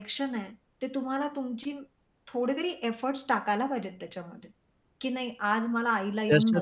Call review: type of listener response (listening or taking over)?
taking over